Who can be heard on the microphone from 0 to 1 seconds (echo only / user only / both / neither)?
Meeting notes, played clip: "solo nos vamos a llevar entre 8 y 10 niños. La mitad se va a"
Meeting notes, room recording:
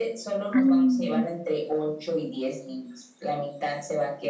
both